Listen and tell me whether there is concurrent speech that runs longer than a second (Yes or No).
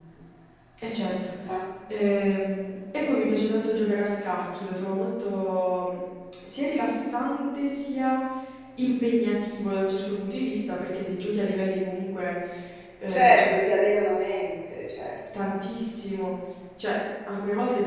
No